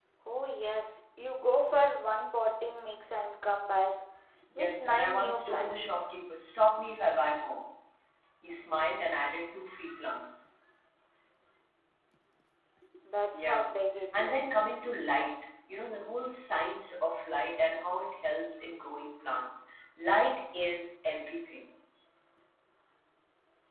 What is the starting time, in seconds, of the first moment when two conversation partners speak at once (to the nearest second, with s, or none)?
5 s